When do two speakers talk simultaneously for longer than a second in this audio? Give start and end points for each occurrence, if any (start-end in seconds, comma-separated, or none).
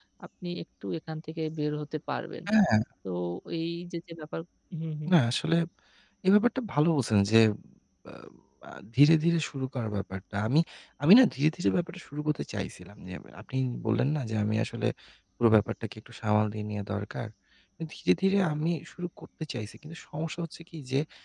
none